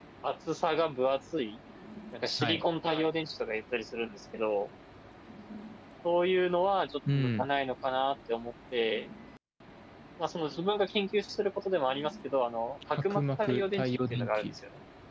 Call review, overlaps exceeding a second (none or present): present